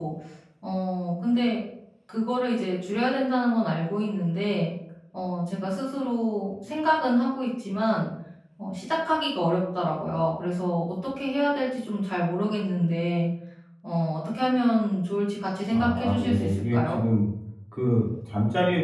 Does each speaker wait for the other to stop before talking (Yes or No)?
No